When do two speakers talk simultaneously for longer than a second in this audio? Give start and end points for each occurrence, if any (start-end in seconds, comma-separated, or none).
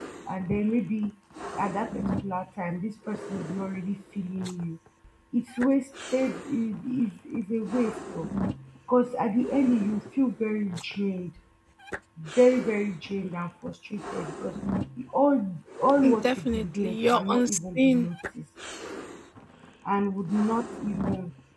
16.2-18.1